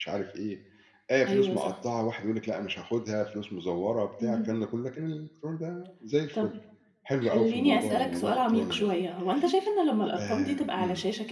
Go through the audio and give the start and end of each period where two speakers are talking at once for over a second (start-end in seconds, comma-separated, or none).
7.2-8.9